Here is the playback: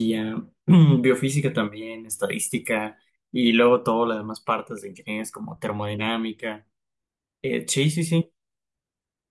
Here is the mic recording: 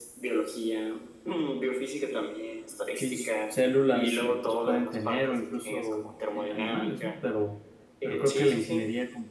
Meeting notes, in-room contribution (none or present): present